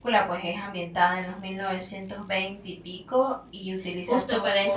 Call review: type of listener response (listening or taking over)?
taking over